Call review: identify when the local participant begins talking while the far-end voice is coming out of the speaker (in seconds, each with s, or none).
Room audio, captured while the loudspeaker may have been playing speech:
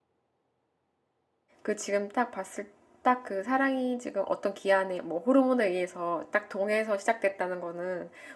1.6 s